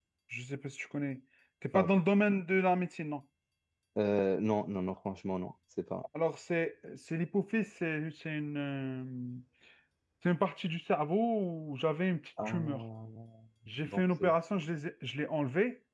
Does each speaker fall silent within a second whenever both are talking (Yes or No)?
Yes